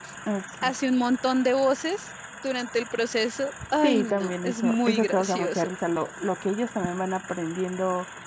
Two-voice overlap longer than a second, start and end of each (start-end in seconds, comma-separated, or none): 3.8-5.7